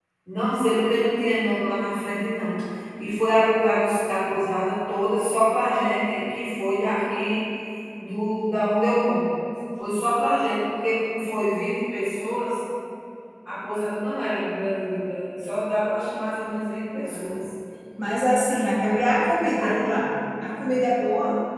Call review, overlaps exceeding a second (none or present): none